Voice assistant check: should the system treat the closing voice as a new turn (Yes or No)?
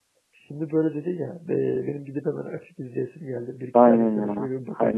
Yes